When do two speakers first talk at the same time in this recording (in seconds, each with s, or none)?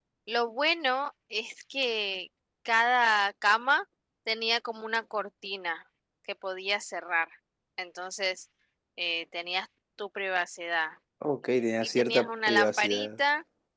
12.0 s